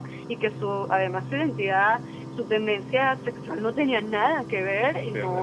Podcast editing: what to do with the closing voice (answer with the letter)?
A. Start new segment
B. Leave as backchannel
B